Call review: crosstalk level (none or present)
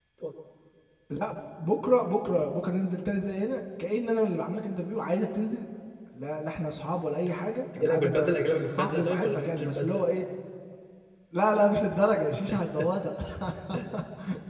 present